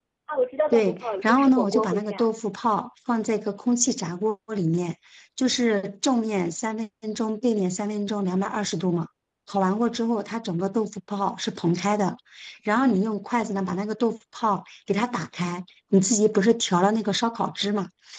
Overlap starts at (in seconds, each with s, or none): 0.7 s